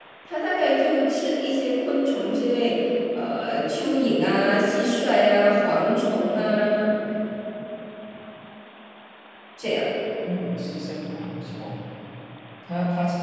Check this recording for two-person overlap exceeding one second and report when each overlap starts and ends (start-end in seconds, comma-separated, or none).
none